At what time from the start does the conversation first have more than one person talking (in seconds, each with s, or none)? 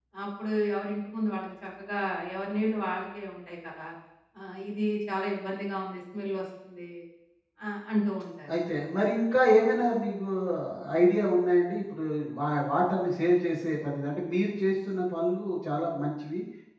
none